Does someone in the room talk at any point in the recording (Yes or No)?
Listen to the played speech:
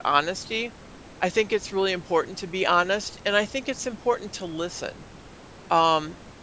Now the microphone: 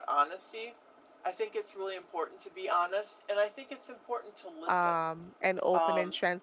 Yes